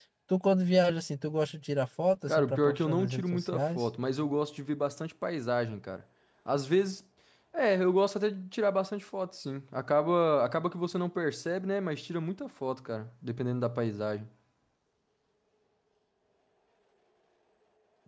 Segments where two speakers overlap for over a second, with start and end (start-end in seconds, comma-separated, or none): 2.3-3.9